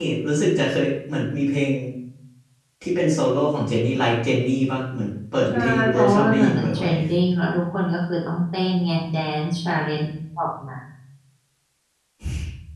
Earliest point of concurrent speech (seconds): 5.5 s

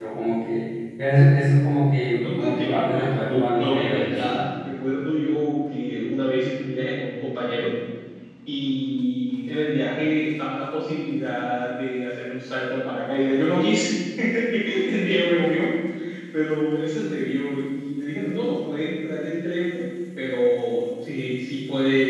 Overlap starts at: 2.2 s

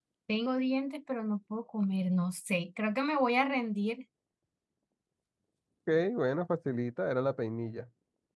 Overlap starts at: none

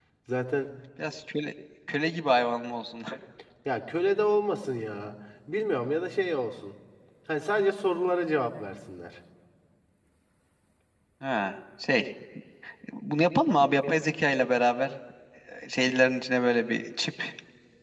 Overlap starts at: none

